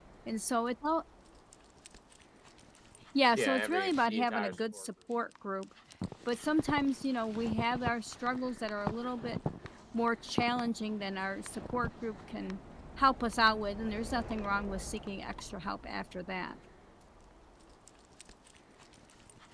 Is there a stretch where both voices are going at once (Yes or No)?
Yes